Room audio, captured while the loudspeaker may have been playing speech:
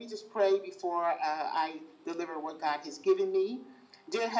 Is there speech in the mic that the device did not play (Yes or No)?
No